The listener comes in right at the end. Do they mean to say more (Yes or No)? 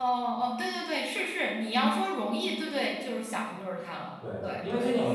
Yes